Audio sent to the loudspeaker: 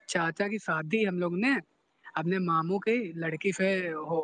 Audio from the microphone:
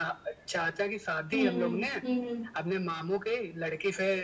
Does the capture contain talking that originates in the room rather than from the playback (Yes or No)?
Yes